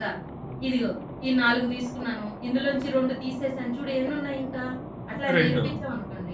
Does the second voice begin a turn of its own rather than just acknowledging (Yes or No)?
No